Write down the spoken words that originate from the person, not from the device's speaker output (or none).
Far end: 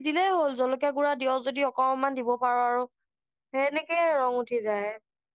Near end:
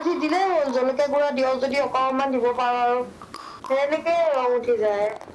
none